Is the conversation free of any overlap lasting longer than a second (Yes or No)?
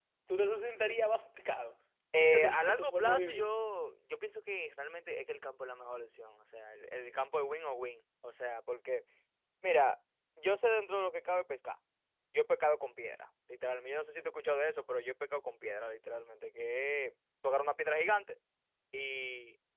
No